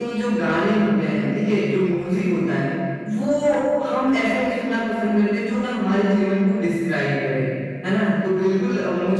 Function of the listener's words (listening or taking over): listening